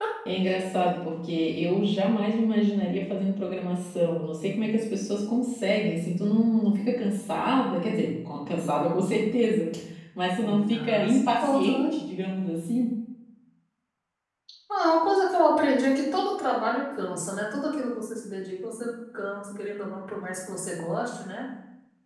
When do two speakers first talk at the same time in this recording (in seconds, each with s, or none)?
10.4 s